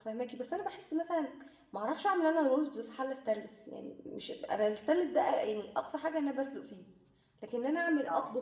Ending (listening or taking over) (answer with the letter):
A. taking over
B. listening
B